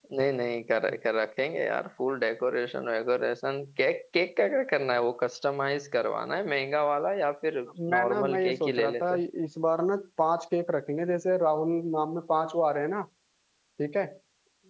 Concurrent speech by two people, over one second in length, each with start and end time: 7.9-9.2

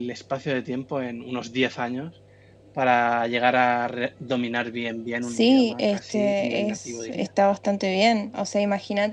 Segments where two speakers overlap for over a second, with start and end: 5.2-7.3

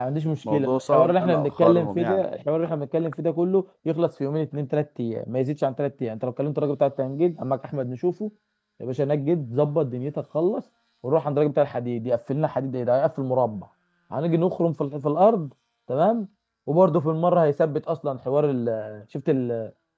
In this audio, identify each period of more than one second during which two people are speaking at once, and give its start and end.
0.5-2.2

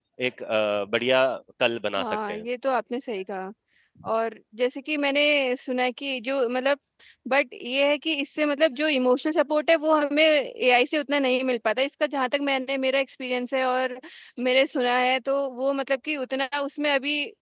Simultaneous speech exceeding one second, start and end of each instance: none

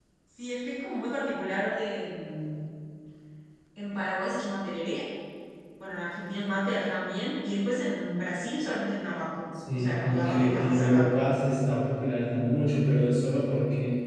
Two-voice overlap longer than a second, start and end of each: 9.7-11.1

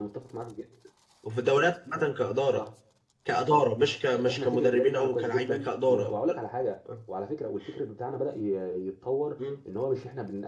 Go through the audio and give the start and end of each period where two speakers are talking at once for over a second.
4.1-6.2

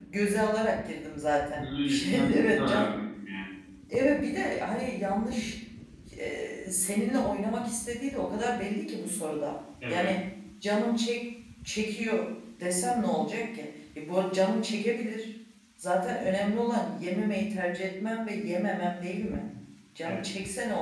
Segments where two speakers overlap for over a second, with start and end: 1.6-2.9

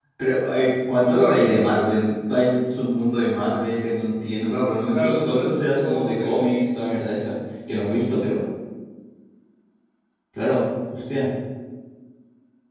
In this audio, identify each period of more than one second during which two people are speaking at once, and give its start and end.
4.9-6.6

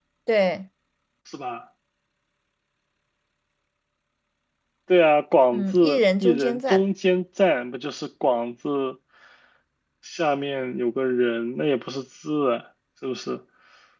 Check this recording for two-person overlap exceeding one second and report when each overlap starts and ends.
5.5-6.8

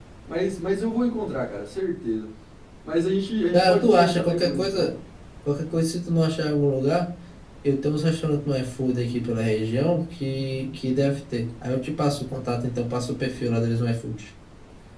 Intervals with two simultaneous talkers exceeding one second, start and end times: 3.5-4.9

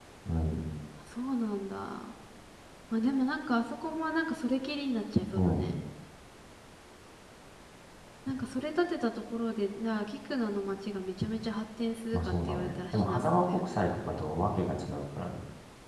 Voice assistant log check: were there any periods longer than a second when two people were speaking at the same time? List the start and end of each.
12.1-13.8

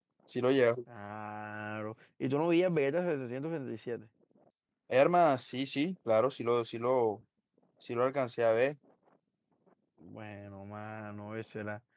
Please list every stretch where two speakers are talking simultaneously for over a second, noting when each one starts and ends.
none

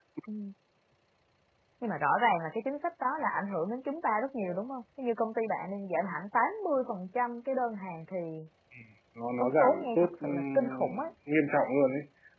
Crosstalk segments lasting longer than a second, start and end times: 9.4-11.0

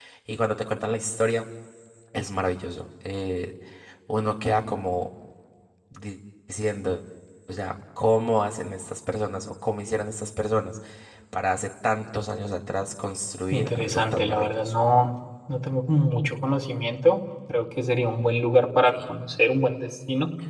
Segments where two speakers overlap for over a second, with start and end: 13.5-14.7

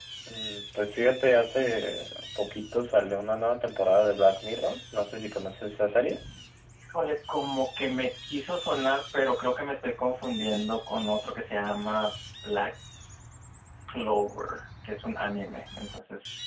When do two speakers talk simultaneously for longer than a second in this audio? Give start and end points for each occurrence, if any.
none

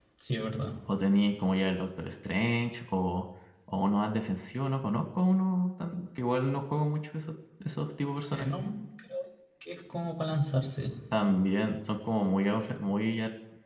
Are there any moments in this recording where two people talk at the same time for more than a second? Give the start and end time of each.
none

